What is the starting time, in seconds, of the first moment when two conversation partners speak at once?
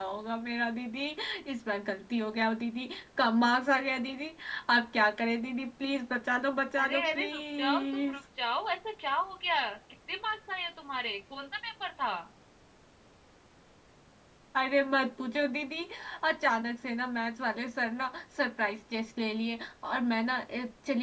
6.8 s

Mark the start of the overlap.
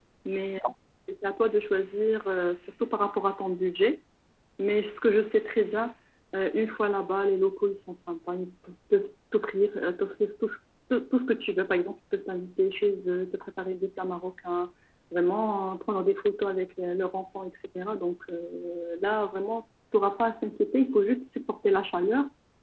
none

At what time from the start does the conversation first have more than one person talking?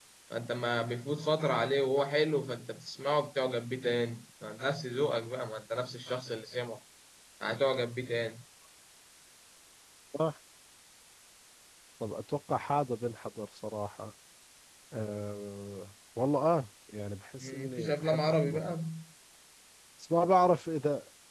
17.4 s

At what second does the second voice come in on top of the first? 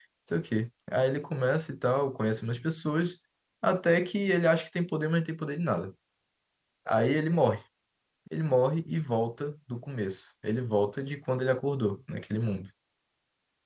none

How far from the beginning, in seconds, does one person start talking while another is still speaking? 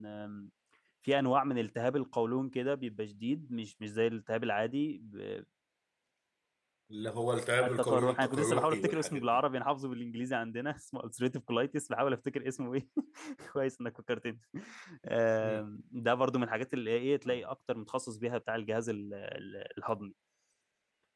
7.6 s

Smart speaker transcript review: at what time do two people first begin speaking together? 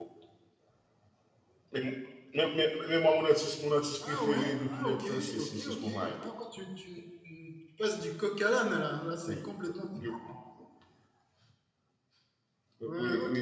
4.0 s

